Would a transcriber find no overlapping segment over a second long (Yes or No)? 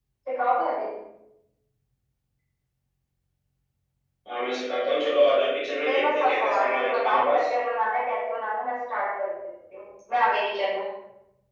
No